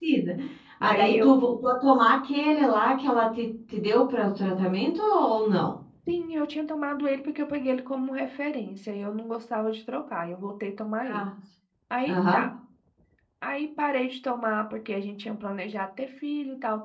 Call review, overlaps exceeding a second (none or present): none